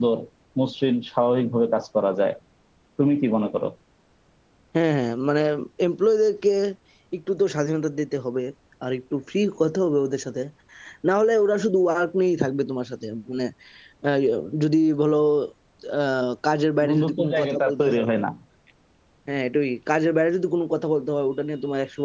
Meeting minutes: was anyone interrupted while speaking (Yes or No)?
Yes